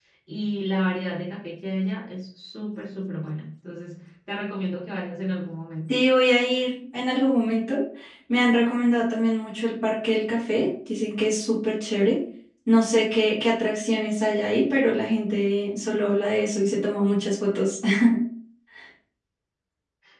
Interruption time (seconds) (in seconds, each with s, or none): none